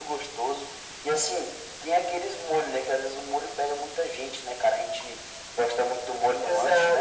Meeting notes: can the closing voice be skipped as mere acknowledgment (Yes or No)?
No